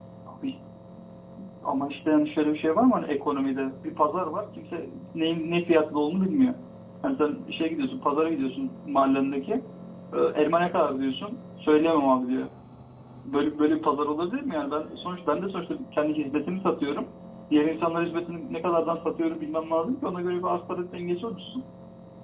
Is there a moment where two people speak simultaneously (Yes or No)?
No